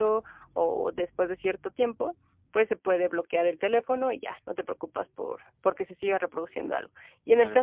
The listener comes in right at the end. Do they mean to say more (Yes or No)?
No